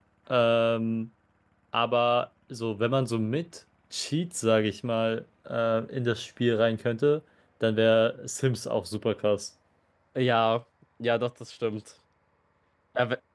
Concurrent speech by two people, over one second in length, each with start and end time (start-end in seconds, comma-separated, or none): none